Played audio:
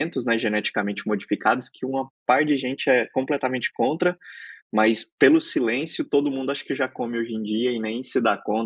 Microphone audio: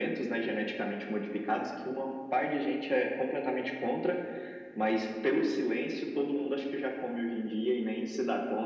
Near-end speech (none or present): none